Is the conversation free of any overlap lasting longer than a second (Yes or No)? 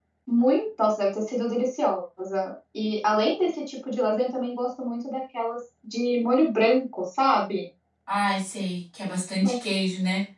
Yes